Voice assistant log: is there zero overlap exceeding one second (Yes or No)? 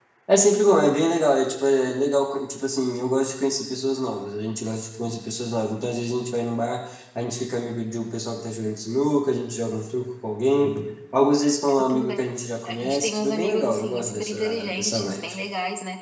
No